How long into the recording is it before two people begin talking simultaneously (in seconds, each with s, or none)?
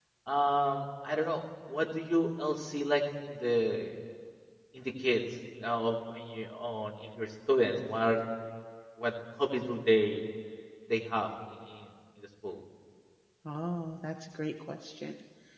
none